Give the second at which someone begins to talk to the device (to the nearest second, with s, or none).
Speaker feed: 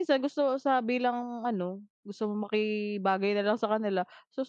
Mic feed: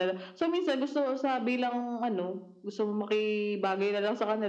none